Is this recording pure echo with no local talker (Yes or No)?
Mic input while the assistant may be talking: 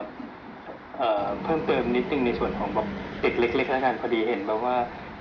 Yes